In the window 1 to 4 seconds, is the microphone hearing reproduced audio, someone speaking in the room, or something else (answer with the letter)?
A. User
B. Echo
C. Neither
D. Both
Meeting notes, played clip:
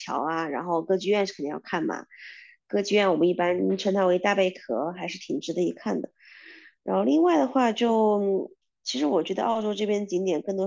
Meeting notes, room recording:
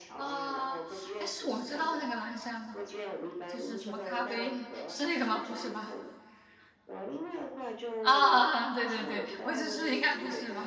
D